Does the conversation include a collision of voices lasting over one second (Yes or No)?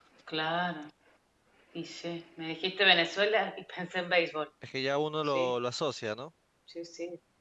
No